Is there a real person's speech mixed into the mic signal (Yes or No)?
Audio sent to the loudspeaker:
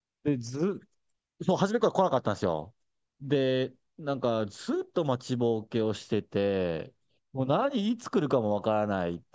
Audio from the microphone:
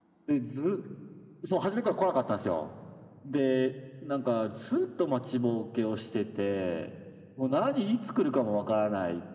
No